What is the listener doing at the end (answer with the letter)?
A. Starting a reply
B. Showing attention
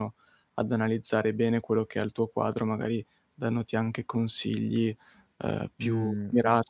A